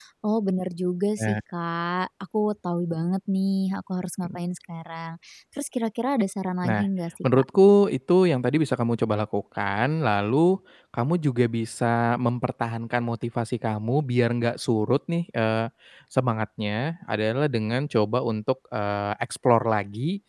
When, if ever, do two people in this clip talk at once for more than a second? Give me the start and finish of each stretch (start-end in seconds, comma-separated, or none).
none